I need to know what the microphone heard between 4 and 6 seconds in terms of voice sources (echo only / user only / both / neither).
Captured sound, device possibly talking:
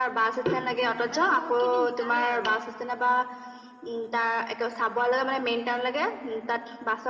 echo only